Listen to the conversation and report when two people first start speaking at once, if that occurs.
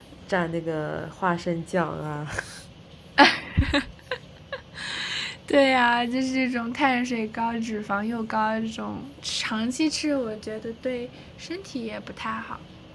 none

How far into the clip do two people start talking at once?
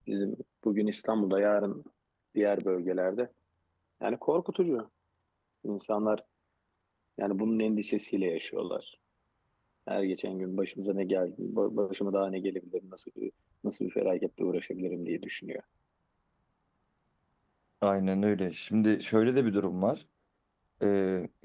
none

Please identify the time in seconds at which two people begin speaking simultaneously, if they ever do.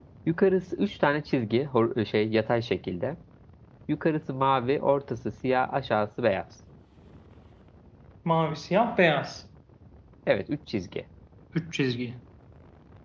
none

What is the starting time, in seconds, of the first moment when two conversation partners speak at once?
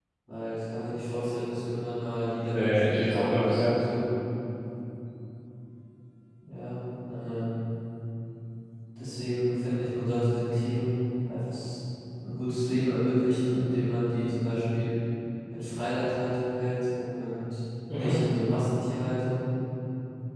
2 s

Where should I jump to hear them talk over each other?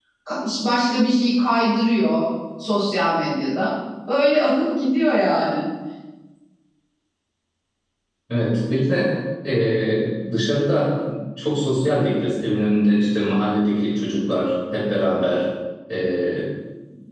none

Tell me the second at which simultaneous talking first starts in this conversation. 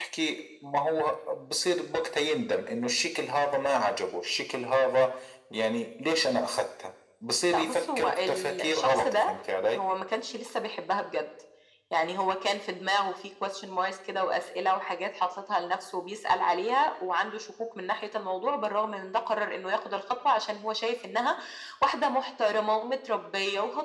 8 s

